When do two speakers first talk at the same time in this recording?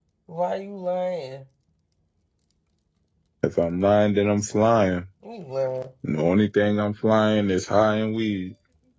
none

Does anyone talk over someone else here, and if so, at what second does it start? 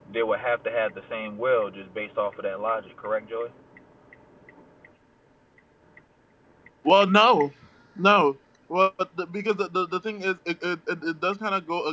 none

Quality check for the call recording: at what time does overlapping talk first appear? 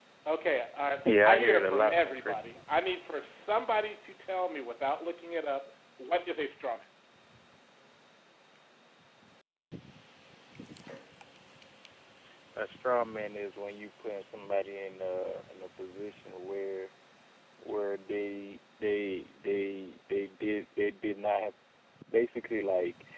1.0 s

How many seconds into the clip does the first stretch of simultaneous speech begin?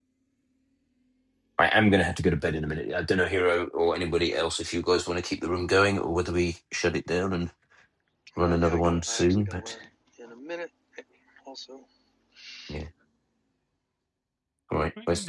8.4 s

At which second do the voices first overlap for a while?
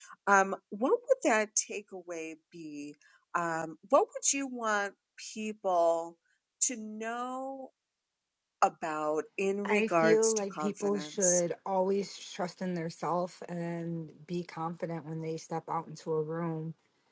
9.7 s

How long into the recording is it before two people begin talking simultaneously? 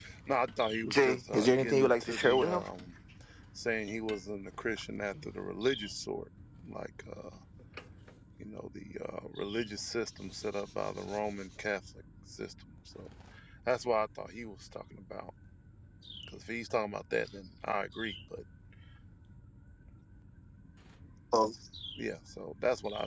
0.9 s

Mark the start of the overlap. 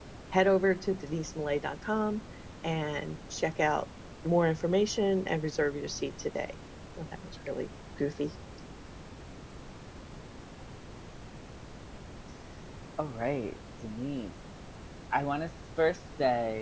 none

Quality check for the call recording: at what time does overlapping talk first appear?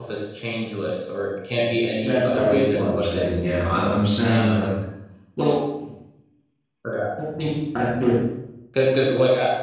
2.0 s

